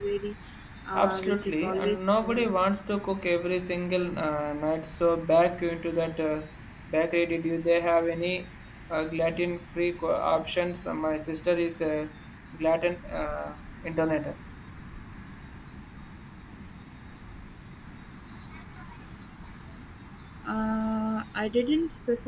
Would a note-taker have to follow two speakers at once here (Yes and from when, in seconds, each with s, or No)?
Yes, from 0.9 s